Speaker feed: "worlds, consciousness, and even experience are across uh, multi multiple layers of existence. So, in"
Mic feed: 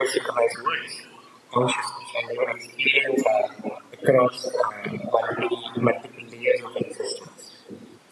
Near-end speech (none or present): none